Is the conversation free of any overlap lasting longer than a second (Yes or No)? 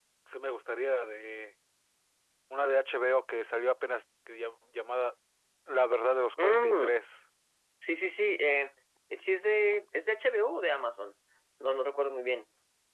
Yes